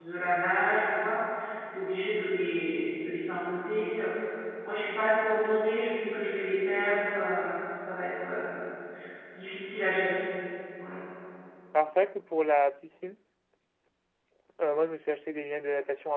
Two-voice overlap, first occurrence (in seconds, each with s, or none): none